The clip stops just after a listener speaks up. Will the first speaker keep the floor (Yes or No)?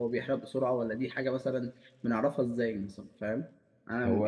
Yes